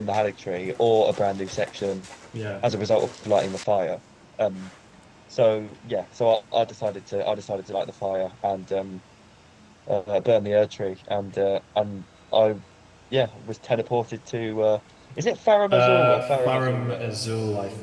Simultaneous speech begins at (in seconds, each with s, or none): 15.7 s